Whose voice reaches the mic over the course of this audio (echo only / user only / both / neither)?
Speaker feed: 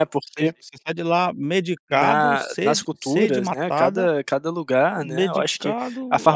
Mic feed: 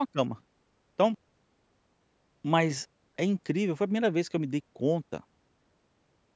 user only